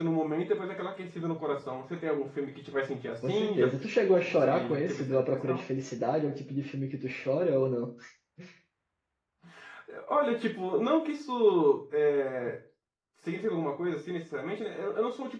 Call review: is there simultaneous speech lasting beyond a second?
Yes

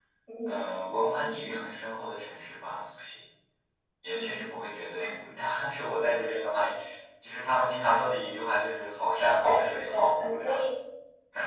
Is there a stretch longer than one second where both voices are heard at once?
Yes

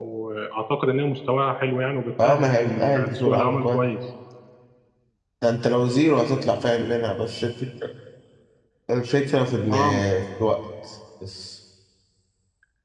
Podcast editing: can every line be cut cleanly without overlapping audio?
No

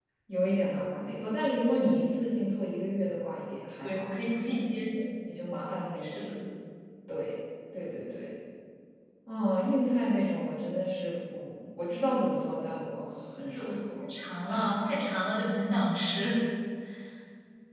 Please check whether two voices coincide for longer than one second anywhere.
No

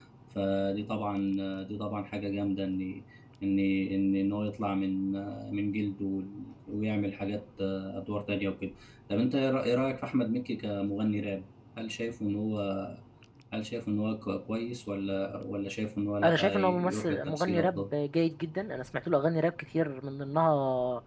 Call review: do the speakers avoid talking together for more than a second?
No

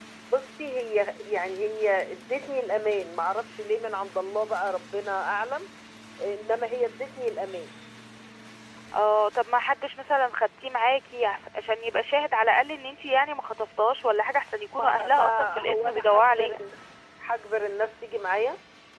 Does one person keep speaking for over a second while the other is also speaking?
Yes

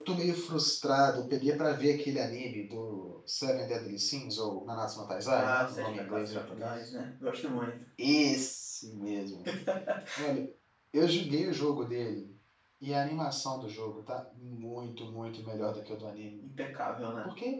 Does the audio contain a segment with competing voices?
Yes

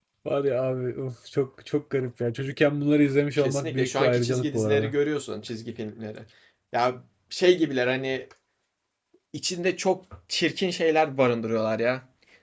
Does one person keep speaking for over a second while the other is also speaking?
Yes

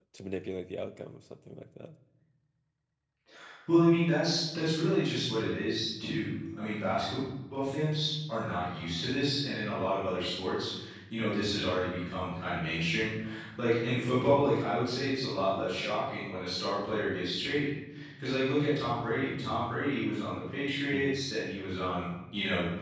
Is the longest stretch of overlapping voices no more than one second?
Yes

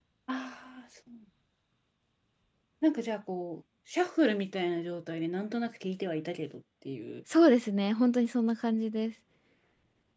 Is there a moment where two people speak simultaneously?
No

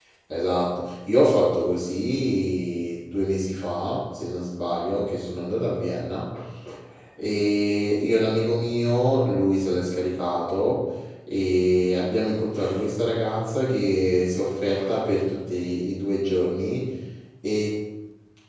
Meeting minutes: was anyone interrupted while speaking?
No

